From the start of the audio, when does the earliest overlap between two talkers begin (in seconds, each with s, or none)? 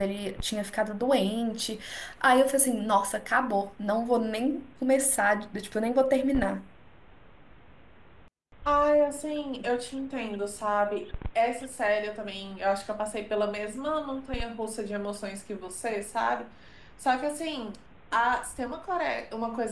none